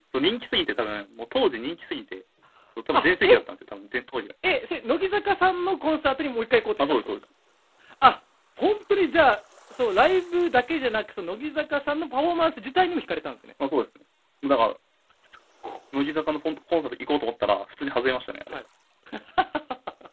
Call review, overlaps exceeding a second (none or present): none